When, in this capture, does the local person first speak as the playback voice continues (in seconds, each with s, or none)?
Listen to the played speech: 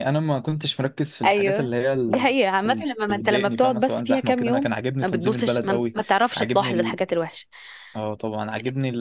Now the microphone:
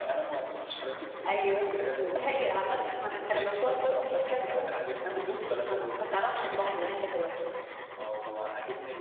none